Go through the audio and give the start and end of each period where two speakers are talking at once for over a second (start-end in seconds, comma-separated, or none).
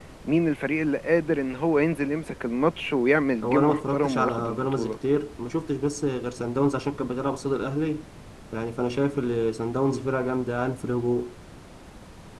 3.4-4.9